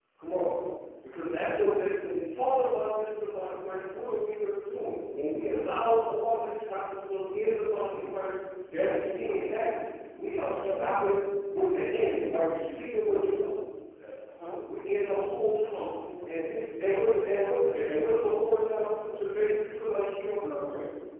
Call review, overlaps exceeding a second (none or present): none